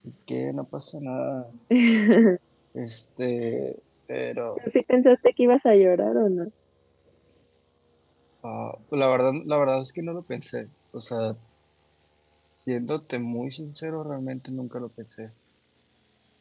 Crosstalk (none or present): none